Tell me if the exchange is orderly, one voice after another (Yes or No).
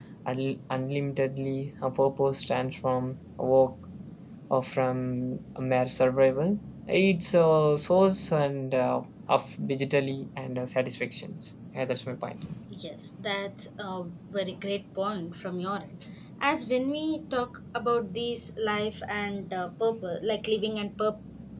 Yes